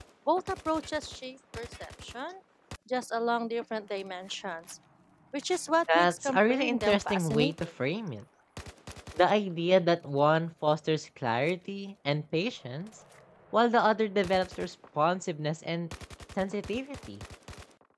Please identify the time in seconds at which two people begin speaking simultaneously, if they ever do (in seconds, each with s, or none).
6.0 s